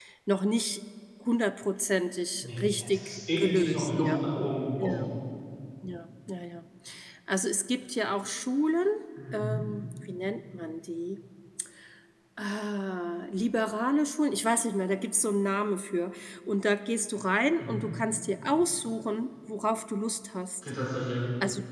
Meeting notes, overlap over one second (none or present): present